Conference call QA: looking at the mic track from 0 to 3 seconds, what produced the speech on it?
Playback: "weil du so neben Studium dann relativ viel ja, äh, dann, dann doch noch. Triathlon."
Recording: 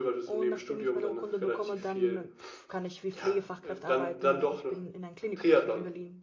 both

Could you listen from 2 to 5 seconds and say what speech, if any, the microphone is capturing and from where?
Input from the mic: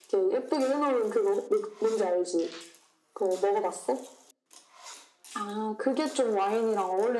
echo only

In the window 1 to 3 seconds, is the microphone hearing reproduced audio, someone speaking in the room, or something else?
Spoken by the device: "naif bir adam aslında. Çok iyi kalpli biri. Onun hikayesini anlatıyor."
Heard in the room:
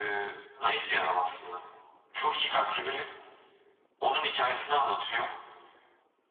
echo only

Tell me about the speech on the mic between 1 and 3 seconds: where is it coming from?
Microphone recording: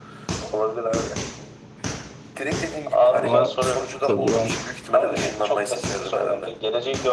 echo only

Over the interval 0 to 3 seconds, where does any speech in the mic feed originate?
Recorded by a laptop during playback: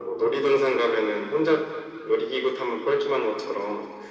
echo only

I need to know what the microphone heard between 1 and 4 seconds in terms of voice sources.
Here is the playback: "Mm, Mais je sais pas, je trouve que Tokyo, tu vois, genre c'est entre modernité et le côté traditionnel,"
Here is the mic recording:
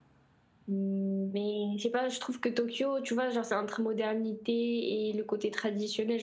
echo only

